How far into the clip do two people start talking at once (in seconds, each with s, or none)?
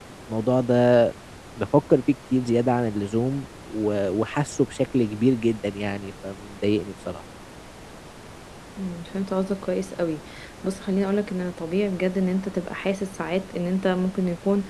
none